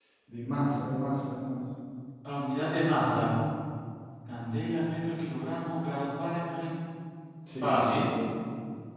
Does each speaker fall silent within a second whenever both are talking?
Yes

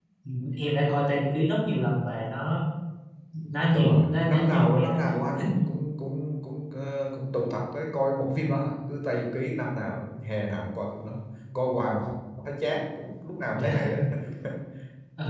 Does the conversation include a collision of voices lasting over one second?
Yes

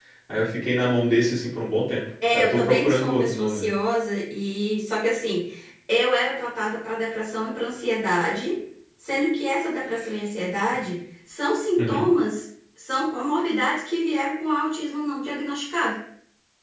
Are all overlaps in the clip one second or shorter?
No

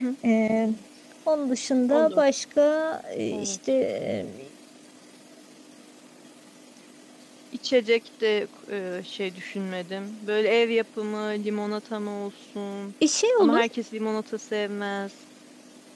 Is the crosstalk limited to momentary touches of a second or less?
Yes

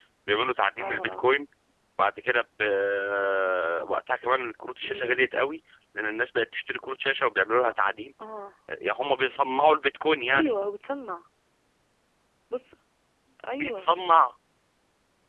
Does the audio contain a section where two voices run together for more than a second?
No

